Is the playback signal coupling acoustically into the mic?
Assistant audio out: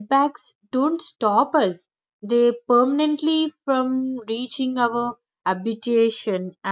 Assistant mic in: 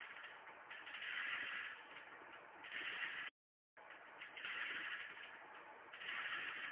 No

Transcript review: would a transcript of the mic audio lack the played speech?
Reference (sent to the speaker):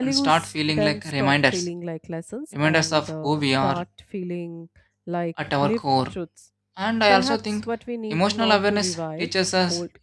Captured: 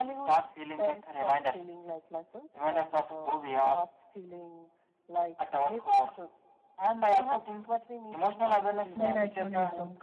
No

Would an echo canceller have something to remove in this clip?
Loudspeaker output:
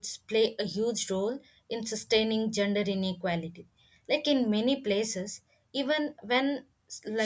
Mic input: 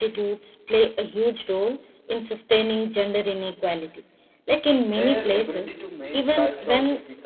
Yes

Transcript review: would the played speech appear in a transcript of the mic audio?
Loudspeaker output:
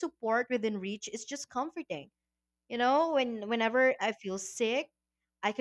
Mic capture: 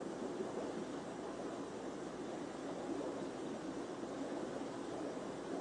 No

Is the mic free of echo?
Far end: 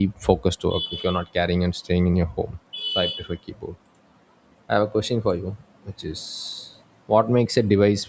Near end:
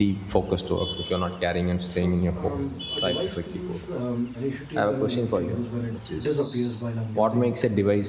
No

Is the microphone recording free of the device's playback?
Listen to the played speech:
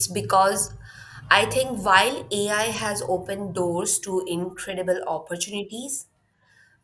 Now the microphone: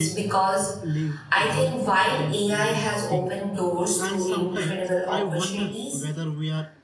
No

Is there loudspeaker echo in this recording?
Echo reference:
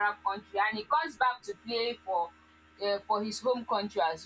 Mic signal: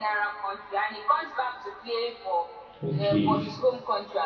Yes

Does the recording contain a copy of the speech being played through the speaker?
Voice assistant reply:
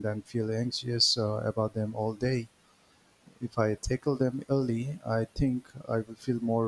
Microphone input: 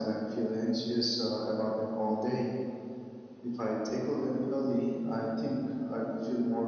Yes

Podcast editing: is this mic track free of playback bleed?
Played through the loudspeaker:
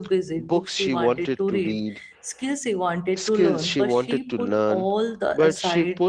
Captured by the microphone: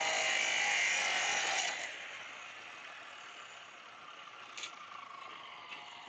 Yes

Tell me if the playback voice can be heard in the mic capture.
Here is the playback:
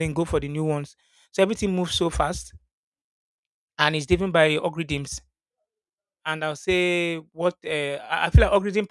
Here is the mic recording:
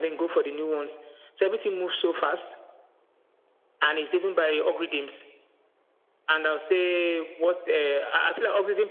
Yes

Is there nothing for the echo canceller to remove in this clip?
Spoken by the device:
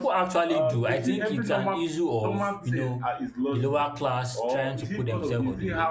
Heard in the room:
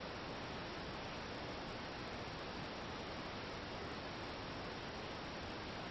Yes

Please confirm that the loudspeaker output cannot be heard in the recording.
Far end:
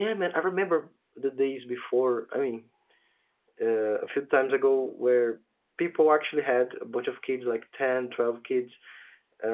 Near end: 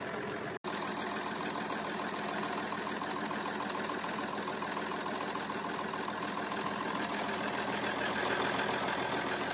Yes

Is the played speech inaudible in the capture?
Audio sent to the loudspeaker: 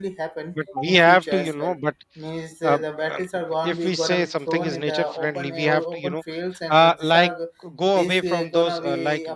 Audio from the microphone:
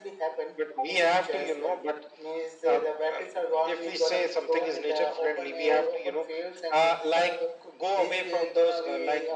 No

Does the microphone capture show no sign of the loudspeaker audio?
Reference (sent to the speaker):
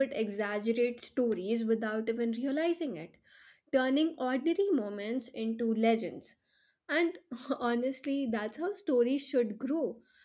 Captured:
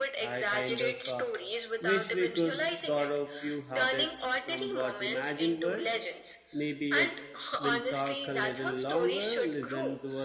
No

